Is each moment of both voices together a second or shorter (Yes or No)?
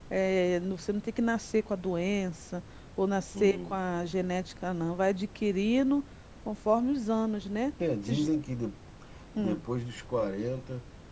Yes